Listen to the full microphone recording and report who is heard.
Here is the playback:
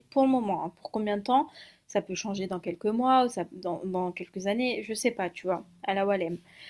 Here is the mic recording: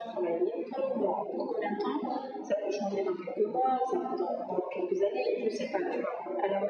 echo only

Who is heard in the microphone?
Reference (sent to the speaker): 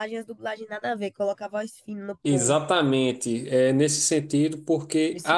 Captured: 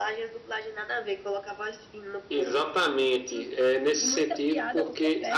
both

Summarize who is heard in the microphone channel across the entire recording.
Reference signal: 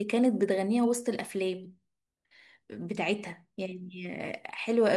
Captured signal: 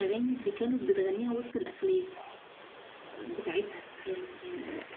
echo only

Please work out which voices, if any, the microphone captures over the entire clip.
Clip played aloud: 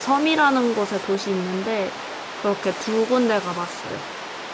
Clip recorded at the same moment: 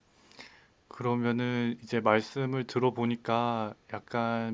user only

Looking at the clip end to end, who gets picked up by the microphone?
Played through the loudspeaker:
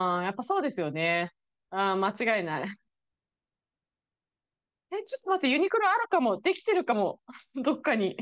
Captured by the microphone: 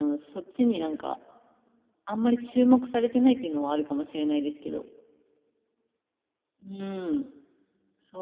user only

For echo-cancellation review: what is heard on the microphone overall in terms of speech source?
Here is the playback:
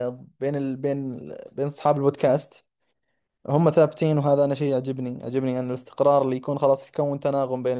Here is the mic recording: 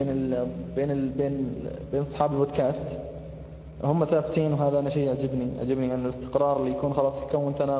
echo only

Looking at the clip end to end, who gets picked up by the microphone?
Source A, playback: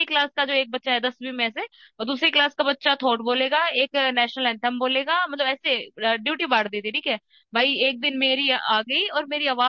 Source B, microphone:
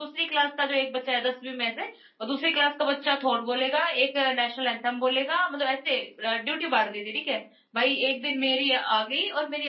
echo only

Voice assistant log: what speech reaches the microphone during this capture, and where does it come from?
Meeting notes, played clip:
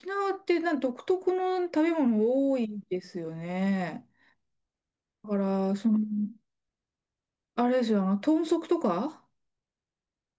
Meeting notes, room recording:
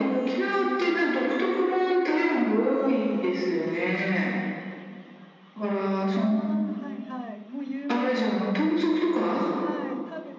both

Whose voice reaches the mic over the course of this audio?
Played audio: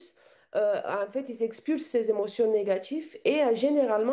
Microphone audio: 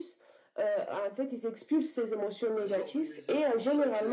both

